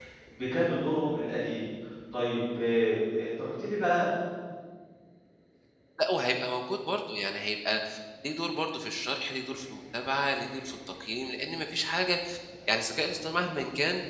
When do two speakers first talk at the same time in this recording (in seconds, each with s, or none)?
none